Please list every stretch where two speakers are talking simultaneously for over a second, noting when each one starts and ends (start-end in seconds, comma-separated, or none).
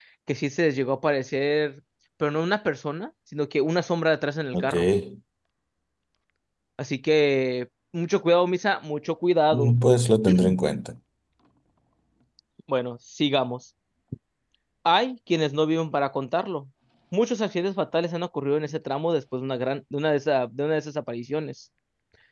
none